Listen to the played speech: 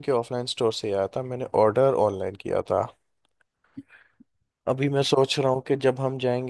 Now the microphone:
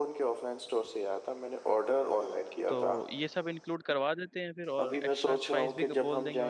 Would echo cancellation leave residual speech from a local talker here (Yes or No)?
Yes